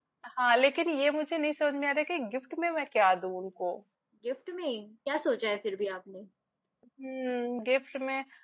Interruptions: none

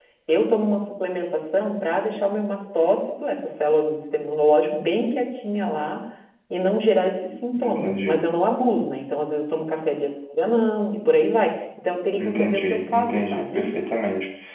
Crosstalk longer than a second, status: present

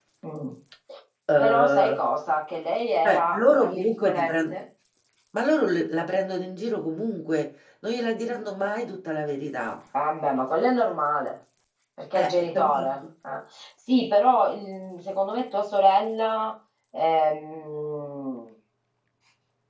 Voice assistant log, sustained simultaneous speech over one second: present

